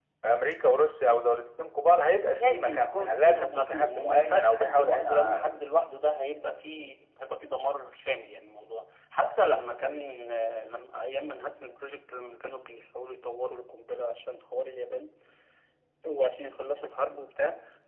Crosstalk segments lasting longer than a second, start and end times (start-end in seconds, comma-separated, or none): 2.4-5.5